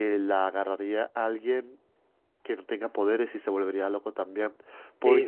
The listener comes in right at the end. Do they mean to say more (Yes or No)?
Yes